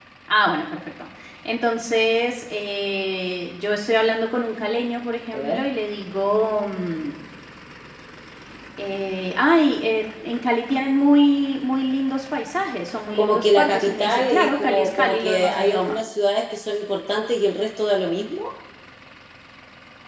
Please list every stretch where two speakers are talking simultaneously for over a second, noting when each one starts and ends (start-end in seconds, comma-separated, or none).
13.2-16.0